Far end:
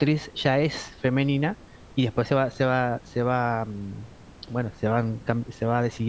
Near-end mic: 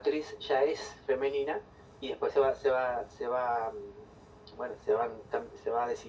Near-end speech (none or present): none